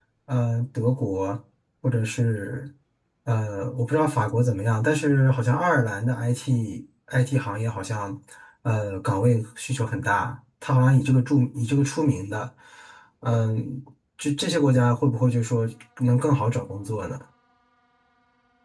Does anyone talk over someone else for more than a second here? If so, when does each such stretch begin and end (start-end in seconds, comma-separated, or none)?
none